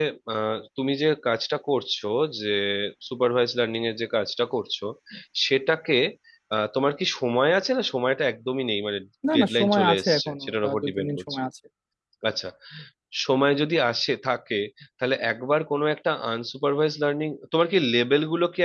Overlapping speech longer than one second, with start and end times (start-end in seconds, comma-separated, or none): 9.3-11.1